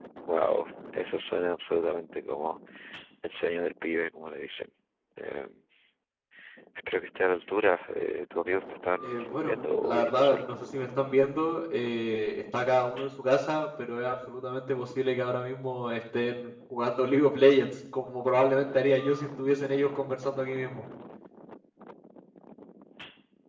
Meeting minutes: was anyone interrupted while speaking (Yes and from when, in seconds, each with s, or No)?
Yes, from 9.0 s